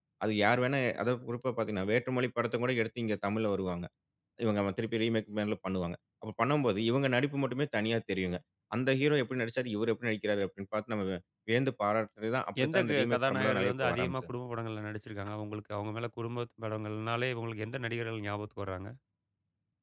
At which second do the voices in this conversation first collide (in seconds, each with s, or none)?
12.6 s